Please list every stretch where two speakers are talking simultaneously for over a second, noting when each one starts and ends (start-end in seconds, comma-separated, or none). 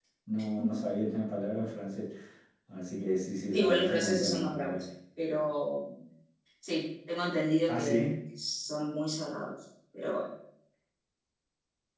3.5-4.8